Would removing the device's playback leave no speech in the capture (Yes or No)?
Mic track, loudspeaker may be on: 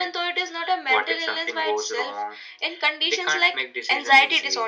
Yes